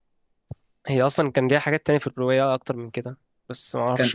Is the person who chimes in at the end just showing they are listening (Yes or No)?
Yes